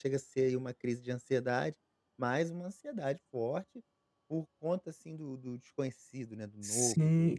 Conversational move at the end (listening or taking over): taking over